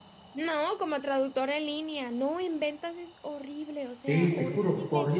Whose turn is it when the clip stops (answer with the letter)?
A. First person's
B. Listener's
B